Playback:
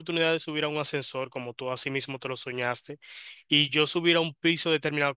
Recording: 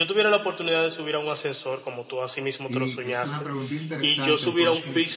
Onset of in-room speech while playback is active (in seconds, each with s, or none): 2.6 s